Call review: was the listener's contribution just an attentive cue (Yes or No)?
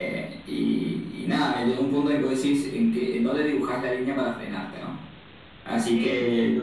Yes